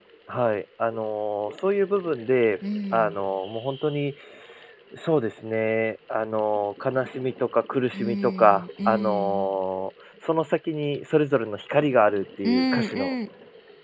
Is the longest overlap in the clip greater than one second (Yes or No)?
Yes